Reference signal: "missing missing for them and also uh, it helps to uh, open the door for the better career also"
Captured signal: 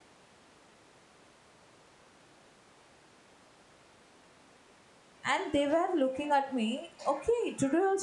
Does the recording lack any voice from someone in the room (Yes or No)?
No